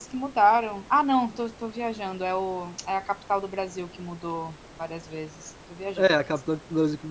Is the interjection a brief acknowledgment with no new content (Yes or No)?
No